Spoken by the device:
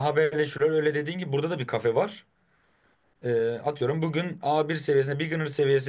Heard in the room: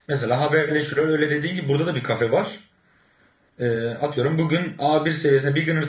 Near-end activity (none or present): none